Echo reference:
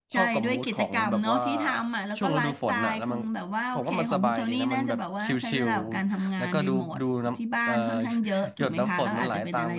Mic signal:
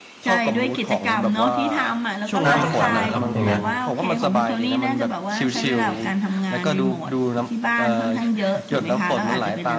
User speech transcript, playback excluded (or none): น้ำมันขังไหมครับอย่างเงี้ย